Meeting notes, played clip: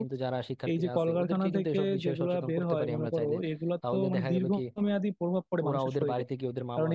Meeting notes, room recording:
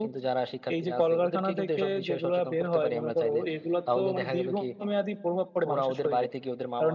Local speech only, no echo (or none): none